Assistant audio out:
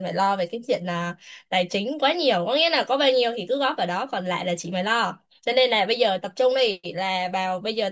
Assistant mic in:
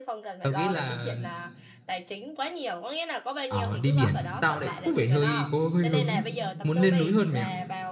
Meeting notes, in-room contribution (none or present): present